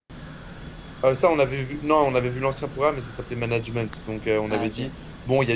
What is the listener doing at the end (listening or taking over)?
listening